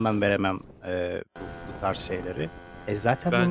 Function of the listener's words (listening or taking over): listening